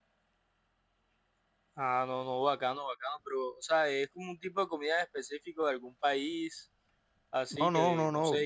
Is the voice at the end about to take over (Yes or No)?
Yes